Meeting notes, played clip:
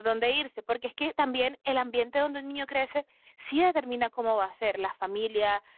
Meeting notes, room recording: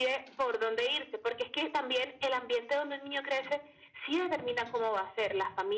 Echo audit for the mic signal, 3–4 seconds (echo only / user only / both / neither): echo only